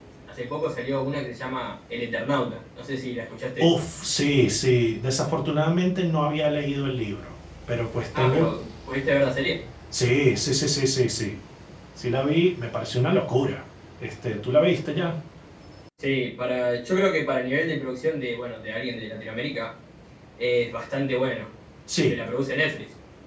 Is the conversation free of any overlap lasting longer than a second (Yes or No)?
Yes